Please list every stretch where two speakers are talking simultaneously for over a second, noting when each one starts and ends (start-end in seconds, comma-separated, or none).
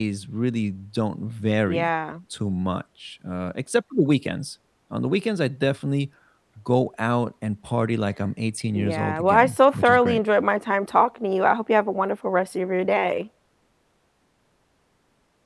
8.8-10.2